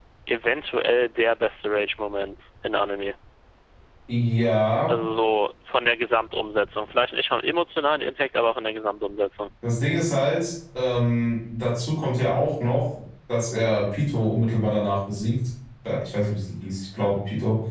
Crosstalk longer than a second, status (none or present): none